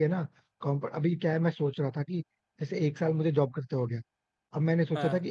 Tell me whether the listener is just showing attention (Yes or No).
Yes